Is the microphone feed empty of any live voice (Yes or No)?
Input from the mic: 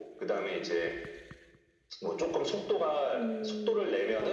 No